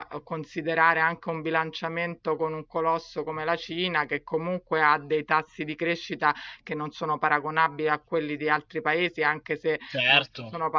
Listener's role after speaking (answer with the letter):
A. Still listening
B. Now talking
A